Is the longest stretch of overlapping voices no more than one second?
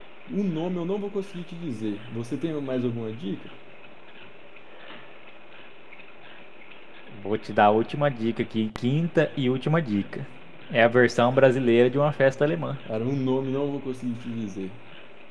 Yes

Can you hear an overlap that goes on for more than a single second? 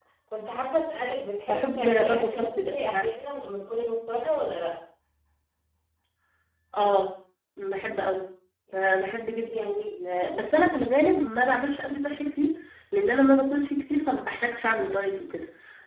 Yes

